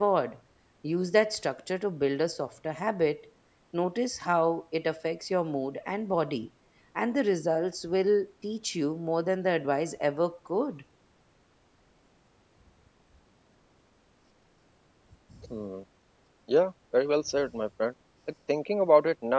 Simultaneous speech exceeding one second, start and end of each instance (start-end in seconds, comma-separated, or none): none